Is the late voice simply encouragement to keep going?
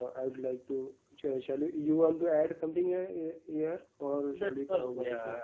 No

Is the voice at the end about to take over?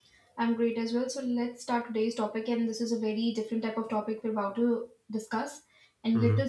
No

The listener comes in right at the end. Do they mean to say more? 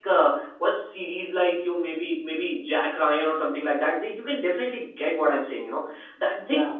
No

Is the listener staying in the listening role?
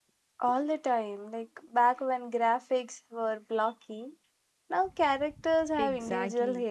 No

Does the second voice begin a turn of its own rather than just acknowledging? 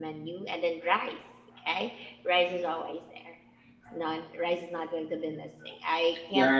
Yes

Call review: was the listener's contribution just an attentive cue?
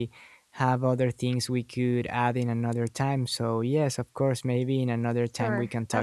No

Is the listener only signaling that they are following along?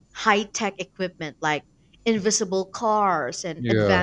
Yes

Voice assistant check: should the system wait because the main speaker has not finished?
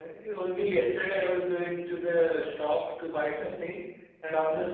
Yes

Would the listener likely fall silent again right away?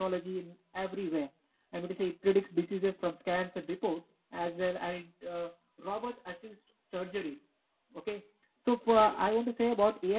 Yes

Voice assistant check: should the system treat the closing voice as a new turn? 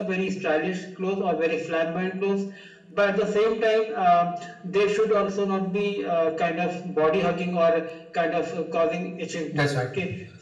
No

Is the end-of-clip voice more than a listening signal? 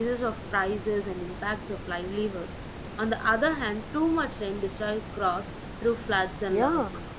Yes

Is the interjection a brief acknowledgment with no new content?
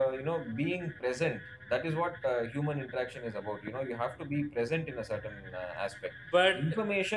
Yes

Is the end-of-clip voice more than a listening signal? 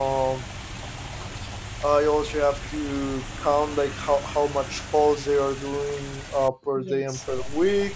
No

